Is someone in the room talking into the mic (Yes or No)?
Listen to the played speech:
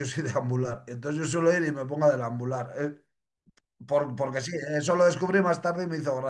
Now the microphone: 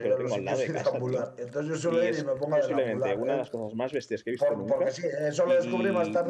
Yes